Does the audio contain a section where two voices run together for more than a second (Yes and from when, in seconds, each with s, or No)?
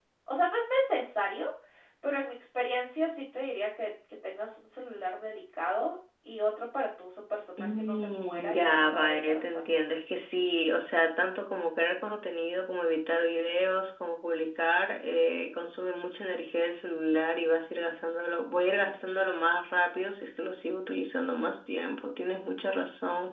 Yes, from 7.6 s